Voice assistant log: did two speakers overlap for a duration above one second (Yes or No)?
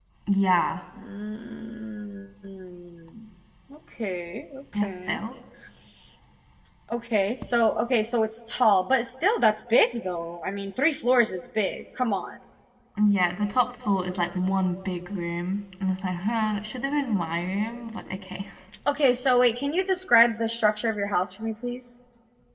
No